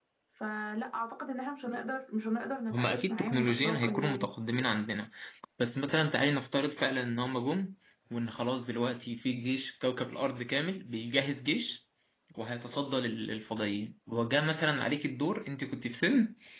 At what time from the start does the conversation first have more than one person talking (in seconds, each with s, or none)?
2.7 s